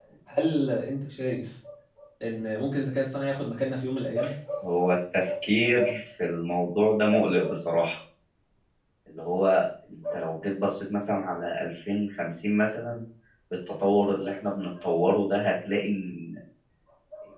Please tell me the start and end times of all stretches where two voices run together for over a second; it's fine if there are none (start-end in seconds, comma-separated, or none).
none